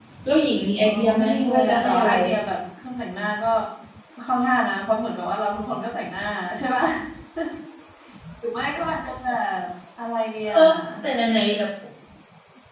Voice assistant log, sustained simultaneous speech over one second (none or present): present